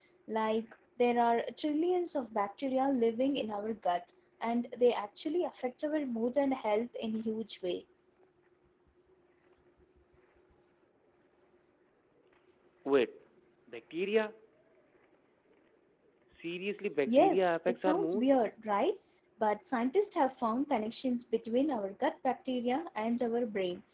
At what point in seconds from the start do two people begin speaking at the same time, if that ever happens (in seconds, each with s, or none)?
17.1 s